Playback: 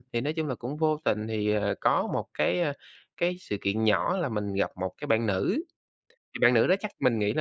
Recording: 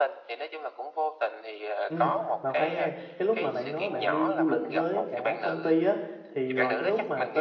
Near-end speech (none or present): present